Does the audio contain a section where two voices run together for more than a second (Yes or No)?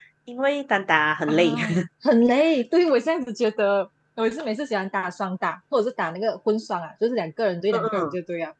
No